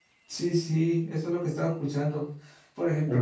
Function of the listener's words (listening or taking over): listening